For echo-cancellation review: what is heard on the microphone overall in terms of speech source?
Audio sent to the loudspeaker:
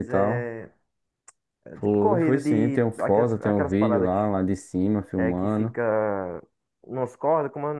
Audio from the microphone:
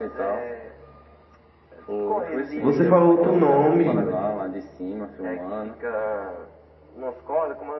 both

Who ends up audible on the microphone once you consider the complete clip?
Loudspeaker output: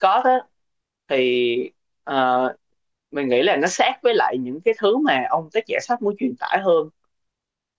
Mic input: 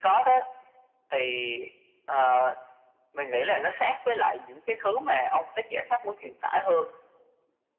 echo only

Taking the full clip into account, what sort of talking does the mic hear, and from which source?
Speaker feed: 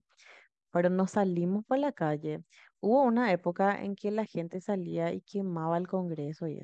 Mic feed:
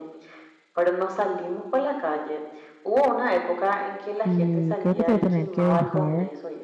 both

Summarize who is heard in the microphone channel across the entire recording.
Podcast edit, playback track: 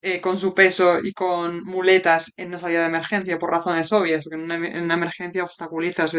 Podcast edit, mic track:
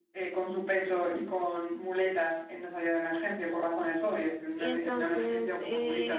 both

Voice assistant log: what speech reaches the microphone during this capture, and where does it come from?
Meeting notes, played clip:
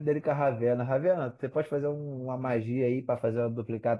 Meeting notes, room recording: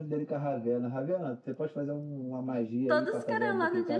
both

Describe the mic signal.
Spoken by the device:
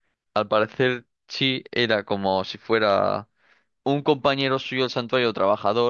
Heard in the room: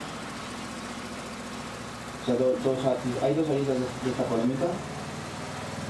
user only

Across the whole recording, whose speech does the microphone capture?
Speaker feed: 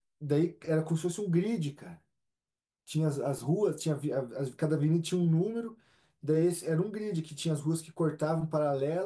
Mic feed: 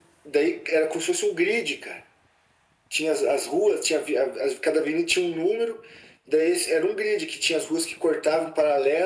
echo only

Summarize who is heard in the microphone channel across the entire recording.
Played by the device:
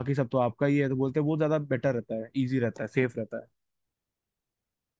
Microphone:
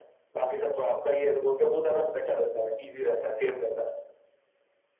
echo only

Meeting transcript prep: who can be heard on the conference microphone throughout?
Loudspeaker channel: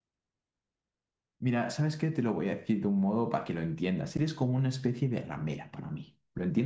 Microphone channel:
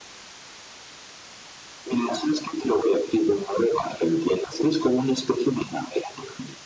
echo only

